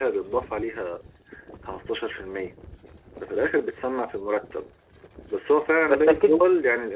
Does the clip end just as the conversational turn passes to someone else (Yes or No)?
No